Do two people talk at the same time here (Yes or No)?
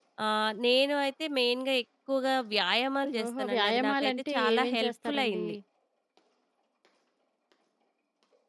Yes